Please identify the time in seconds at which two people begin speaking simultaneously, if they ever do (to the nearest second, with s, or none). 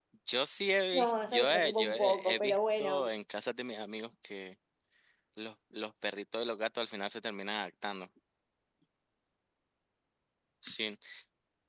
1 s